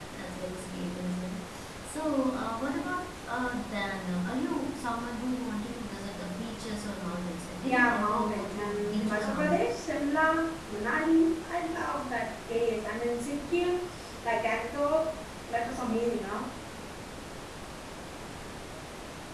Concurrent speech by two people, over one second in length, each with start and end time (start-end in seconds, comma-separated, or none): 7.7-9.7